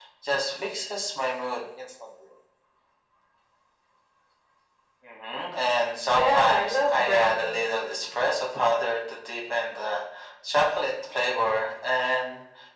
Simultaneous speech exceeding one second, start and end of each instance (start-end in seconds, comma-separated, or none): 6.1-7.7